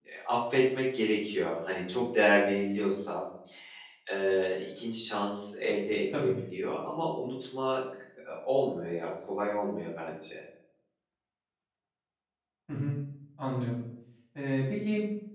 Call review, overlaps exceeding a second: none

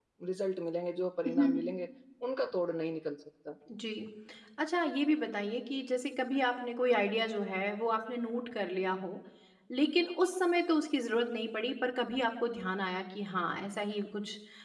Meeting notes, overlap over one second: none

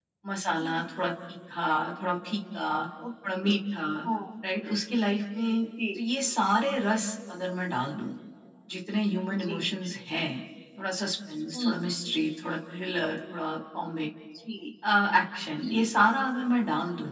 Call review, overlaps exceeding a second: none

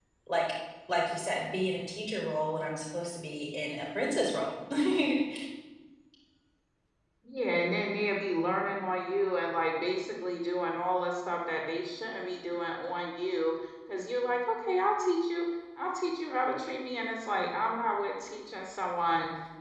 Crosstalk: none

